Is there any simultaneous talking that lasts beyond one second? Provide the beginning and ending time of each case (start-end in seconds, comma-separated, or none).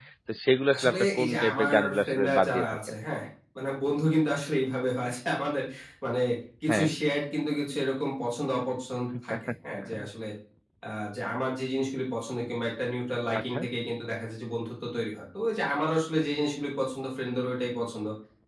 0.8-2.6